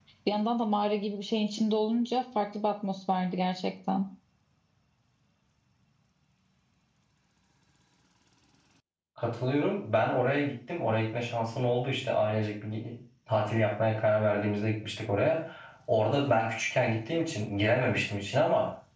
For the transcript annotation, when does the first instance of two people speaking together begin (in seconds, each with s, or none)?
none